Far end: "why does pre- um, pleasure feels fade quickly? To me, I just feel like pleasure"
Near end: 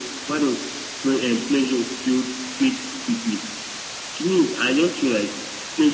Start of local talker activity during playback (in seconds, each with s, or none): none